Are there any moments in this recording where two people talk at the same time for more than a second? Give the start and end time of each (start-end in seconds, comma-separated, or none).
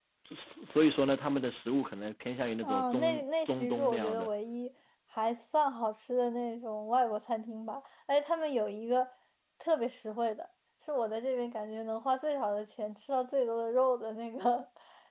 2.6-4.3